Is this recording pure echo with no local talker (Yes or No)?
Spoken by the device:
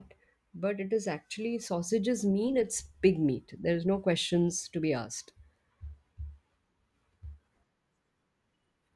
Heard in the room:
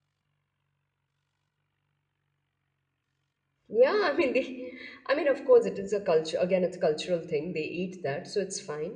No